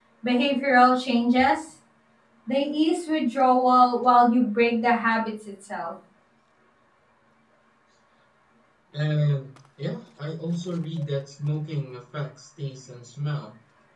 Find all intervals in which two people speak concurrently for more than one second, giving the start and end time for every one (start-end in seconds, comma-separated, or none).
none